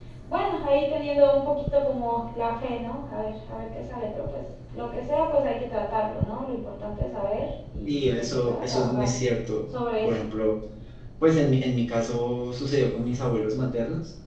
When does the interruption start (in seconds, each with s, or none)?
7.8 s